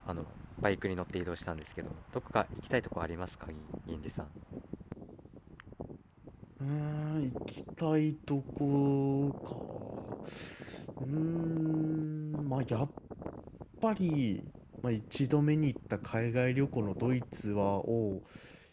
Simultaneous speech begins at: none

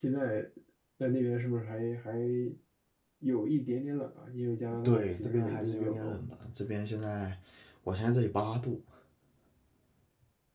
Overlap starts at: 4.8 s

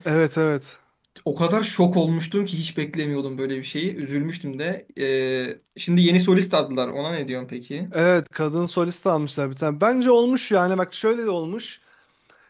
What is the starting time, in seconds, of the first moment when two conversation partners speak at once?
none

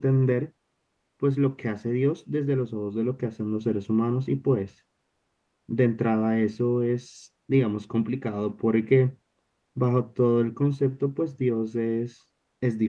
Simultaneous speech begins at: none

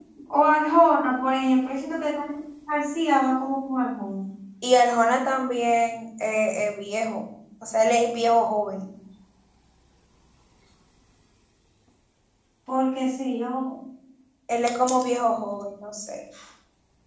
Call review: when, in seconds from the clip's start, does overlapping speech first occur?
none

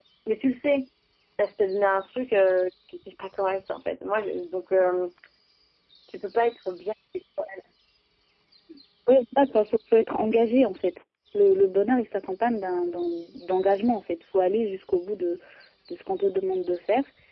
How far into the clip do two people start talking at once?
none

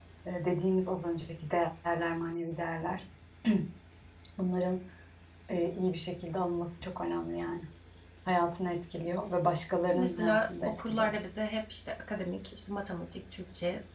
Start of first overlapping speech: 9.9 s

